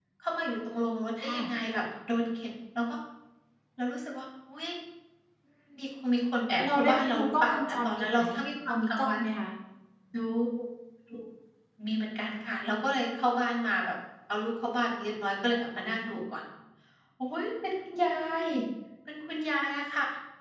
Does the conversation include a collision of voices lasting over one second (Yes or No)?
Yes